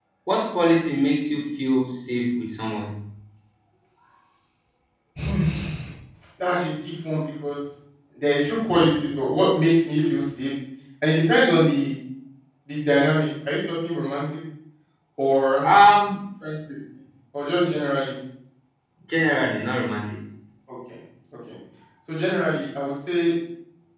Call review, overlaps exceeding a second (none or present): none